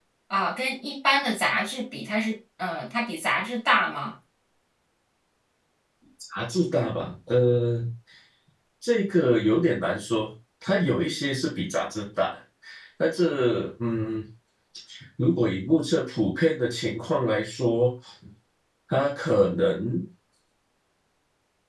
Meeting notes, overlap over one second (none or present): none